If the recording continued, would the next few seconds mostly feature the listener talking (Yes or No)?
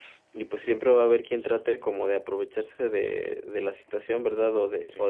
No